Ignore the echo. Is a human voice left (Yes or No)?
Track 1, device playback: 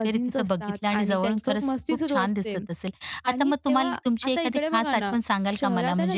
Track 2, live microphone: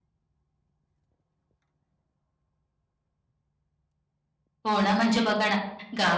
Yes